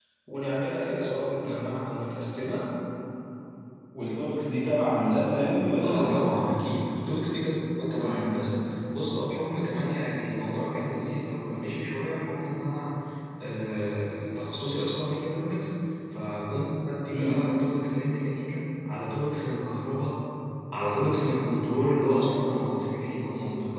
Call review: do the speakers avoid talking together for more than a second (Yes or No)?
Yes